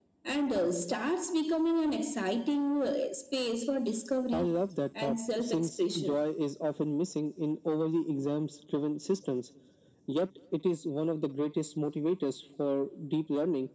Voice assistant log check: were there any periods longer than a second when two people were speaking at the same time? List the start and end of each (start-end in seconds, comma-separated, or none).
5.0-6.2